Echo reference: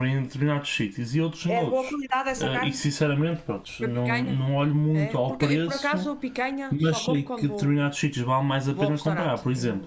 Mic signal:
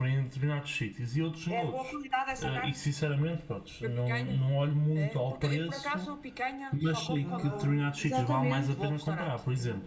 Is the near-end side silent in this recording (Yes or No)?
No